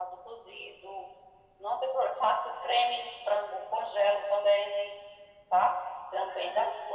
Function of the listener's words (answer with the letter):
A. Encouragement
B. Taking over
A